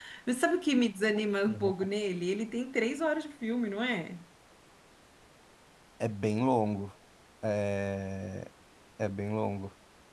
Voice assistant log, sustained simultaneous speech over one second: none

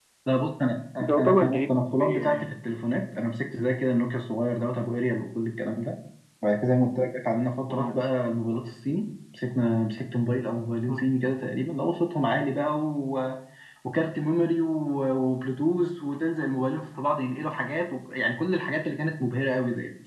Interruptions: present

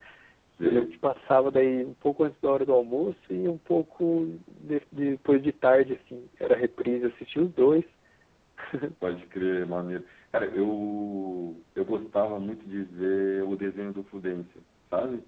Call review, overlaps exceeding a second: none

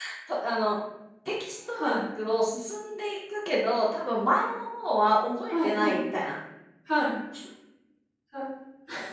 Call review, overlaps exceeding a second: none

